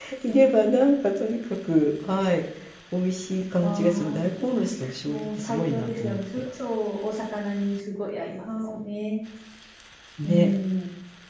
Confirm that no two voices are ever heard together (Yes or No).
No